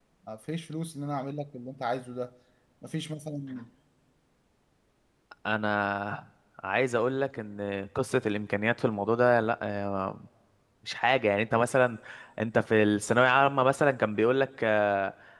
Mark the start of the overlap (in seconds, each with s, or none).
none